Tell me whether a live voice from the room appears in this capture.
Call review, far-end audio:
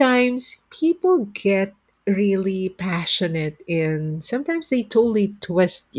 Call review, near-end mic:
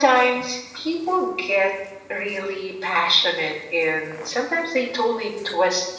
No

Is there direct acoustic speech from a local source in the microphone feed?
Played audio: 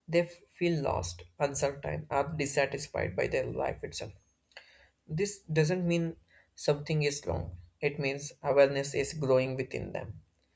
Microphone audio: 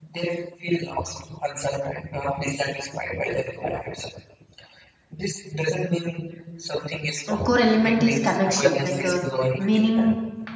Yes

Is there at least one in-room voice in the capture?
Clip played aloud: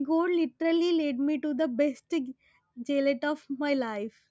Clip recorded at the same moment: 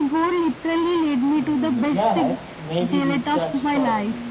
Yes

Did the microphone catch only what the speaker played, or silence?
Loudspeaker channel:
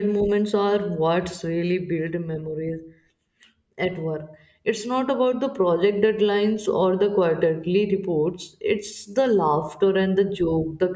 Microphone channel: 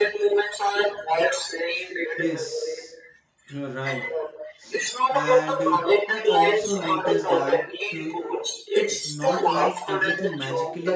No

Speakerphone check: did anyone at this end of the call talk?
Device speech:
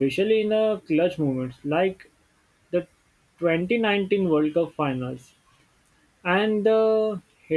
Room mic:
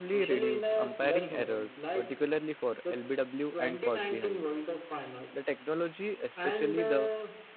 Yes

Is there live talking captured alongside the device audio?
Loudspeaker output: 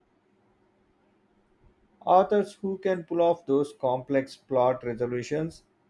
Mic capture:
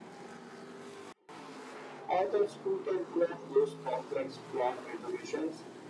No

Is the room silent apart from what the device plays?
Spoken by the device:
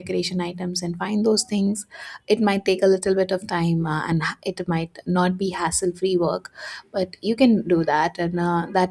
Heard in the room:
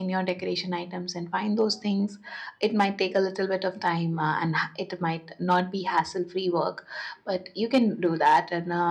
Yes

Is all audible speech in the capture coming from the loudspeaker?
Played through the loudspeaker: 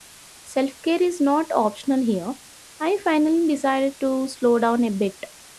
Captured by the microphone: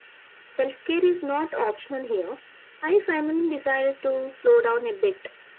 Yes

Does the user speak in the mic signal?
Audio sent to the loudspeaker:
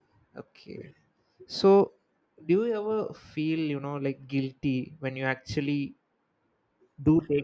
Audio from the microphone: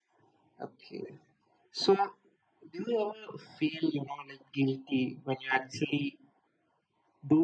No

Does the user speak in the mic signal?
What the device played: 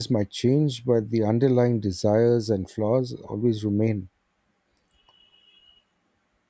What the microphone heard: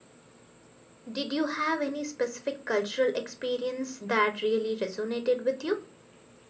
Yes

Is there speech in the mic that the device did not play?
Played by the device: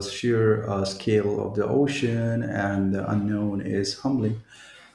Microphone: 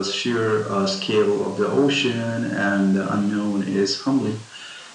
No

